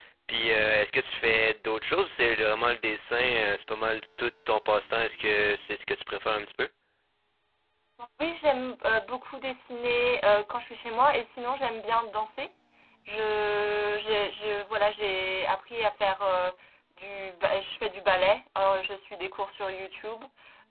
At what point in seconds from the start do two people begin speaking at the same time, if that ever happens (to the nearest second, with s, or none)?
none